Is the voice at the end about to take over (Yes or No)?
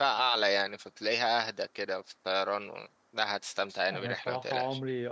Yes